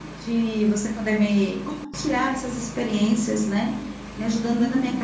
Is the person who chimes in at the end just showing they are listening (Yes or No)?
Yes